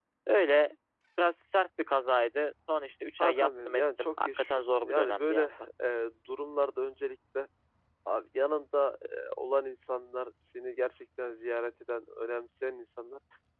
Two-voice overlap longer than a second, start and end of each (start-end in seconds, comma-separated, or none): 3.2-5.6